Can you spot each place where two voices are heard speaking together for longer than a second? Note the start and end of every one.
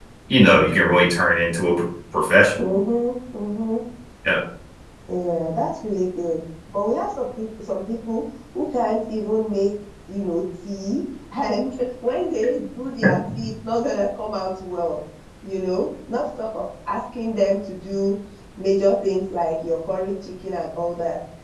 none

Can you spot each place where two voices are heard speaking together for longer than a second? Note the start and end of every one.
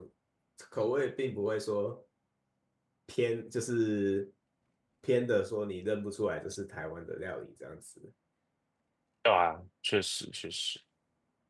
none

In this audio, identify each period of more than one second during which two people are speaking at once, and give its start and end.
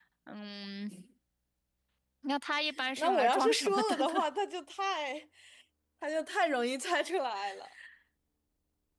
3.0-4.2

